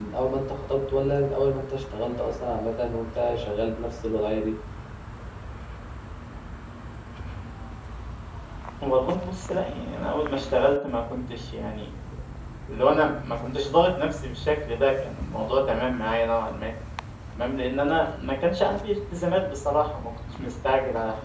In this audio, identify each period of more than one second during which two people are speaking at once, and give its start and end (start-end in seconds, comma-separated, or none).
none